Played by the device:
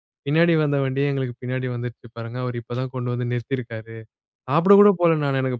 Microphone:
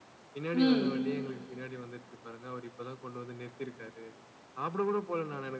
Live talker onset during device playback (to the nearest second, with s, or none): 1 s